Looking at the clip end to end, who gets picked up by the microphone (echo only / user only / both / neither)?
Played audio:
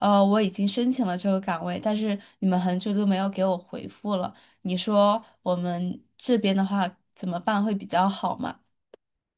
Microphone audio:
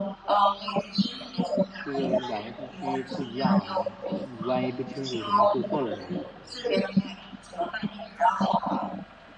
both